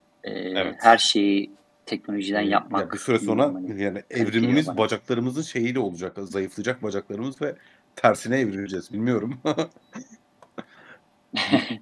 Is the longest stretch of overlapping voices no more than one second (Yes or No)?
No